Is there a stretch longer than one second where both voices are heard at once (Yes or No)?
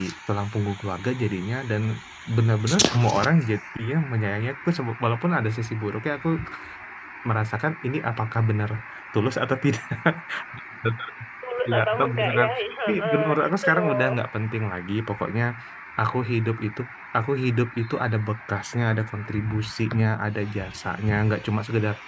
Yes